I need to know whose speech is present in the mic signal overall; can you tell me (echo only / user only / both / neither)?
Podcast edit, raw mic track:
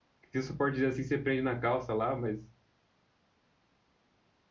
user only